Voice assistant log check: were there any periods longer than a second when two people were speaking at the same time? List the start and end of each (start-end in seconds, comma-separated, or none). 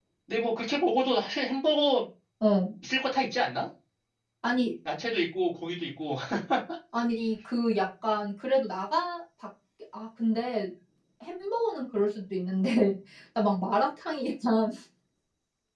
none